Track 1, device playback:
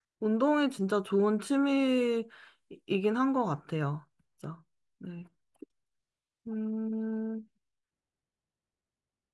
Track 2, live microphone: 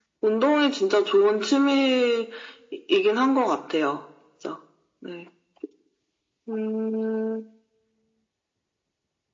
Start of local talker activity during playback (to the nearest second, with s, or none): none